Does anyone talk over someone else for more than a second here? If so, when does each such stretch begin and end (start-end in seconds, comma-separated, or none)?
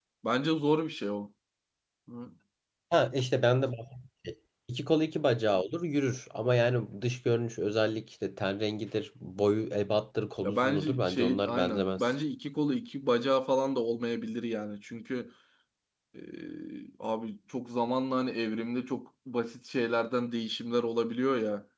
10.4-12.1